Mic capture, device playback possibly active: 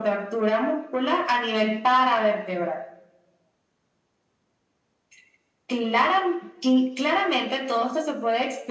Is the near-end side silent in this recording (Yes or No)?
Yes